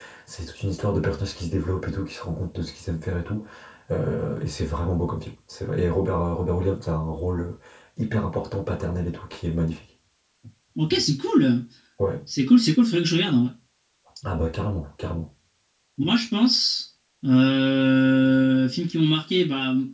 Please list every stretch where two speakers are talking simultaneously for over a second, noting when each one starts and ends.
none

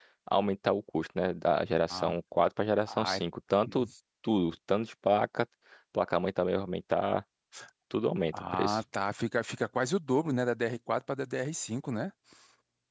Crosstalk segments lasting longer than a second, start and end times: none

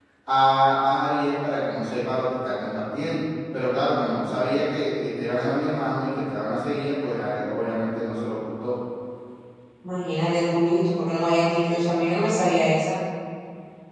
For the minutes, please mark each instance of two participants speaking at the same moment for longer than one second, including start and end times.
none

